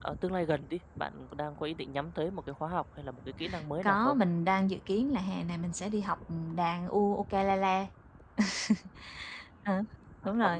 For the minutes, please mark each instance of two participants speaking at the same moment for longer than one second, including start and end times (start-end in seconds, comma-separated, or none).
none